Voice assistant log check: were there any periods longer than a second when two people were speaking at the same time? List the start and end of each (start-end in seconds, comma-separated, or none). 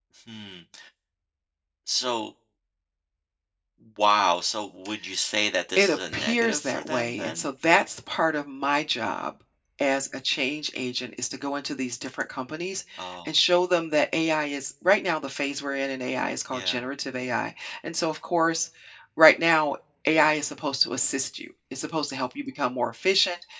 5.8-7.5